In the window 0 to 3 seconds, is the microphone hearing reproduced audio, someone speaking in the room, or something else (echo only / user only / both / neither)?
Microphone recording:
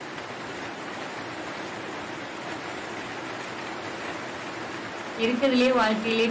neither